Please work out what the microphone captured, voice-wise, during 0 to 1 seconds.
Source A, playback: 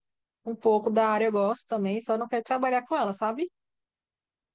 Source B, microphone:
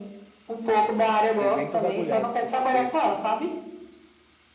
echo only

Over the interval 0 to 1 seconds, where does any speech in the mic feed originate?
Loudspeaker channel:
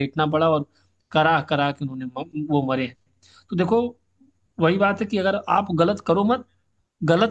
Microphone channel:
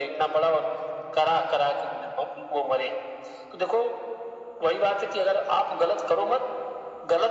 echo only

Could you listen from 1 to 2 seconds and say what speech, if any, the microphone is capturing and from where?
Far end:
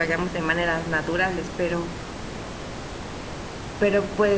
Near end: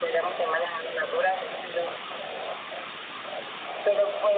echo only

